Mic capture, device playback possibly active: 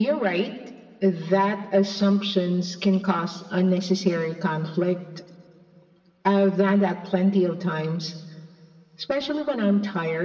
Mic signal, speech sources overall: echo only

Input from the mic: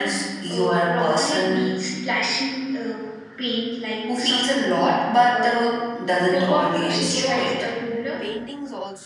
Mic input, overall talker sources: both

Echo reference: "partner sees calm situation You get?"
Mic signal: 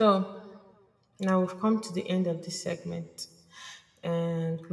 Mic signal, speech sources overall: user only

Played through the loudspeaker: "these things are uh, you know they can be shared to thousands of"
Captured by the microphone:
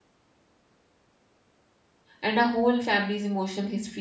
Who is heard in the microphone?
user only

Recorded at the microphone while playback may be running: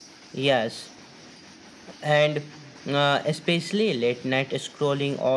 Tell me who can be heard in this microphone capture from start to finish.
echo only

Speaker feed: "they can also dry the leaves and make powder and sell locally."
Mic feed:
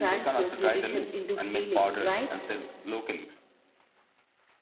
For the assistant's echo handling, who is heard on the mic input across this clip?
both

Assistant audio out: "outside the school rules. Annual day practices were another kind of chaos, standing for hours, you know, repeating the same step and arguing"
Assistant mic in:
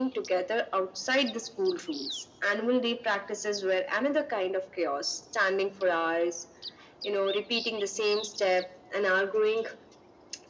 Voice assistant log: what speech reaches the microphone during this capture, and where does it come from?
echo only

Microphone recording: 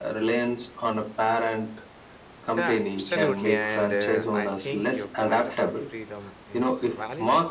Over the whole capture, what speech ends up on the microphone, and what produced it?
both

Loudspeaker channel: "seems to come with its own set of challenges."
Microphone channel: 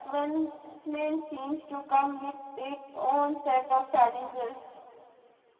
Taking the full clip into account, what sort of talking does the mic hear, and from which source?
echo only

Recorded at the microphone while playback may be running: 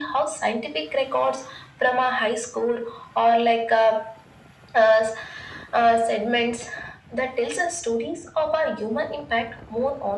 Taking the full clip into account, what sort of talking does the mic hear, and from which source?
echo only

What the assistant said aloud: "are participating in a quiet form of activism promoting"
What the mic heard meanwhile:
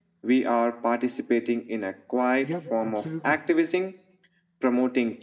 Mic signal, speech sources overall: both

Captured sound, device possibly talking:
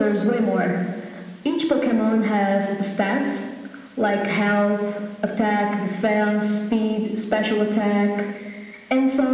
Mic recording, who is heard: echo only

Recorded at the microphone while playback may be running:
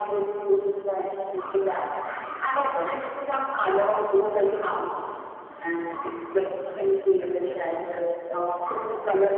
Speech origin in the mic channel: echo only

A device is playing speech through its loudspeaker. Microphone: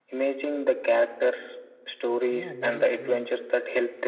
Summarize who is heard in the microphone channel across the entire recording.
both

